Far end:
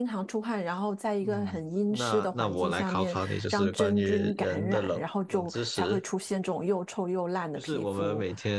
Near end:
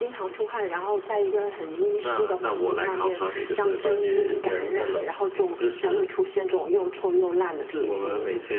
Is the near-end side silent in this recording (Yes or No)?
Yes